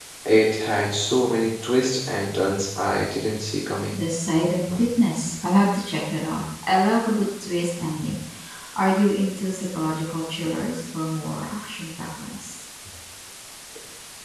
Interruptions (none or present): none